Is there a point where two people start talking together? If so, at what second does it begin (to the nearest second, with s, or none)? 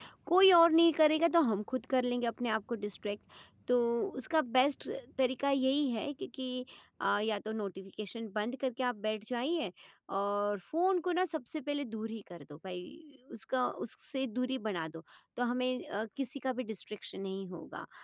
none